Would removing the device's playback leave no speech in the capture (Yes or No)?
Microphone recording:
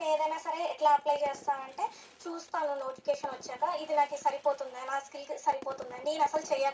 Yes